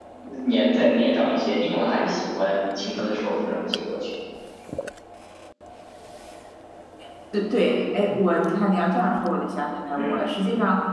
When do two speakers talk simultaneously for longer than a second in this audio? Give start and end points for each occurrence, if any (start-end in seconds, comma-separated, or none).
none